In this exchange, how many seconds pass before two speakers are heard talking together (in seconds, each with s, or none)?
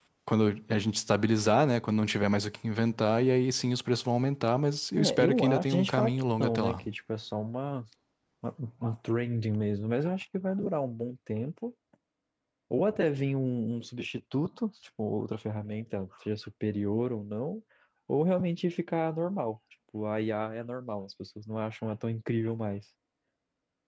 5.0 s